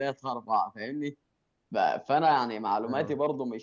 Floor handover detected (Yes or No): No